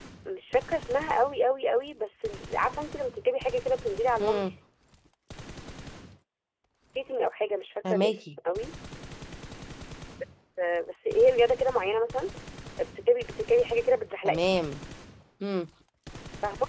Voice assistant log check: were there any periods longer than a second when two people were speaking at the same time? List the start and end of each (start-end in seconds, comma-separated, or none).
none